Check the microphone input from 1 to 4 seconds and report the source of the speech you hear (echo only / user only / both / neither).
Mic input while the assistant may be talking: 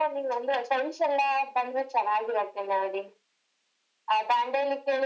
echo only